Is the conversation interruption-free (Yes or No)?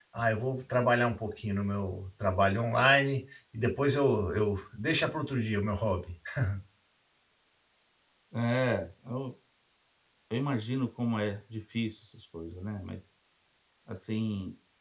Yes